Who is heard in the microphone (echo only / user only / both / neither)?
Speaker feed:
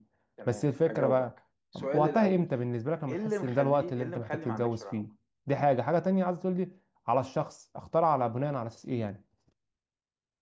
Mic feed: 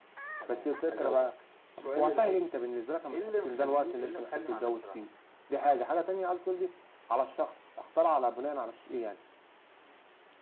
echo only